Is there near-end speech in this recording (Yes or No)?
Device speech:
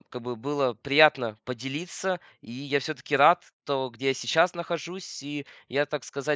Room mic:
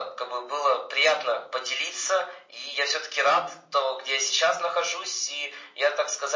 No